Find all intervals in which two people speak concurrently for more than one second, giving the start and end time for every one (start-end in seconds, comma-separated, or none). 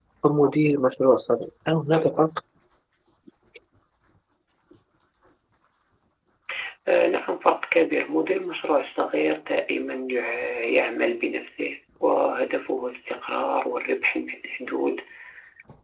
none